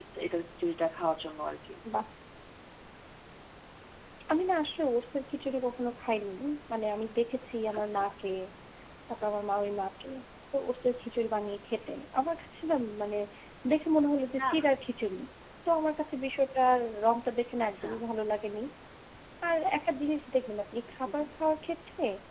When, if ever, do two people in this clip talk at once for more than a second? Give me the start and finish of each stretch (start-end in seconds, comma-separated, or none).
none